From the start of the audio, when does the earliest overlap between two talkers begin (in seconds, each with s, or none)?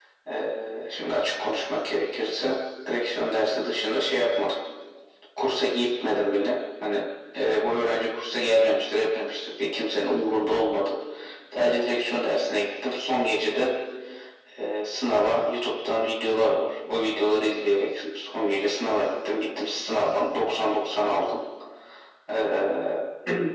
none